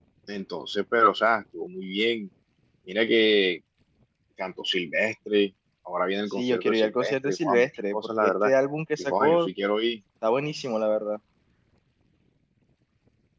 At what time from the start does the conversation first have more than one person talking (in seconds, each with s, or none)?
6.3 s